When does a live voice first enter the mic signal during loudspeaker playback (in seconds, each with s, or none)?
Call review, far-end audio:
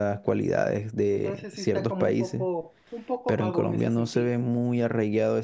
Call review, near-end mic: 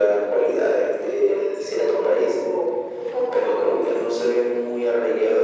none